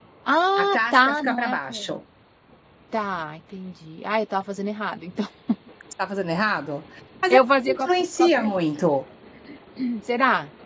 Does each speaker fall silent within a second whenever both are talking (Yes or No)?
No